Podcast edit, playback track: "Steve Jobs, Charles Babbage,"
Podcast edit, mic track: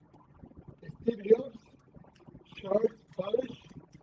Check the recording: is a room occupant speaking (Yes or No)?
No